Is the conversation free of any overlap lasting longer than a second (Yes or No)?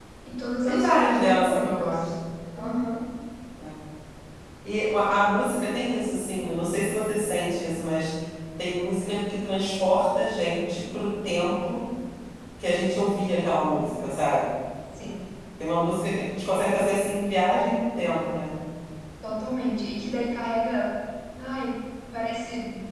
No